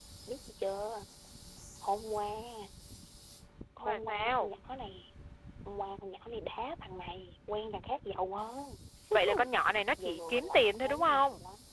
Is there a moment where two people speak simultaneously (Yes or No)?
Yes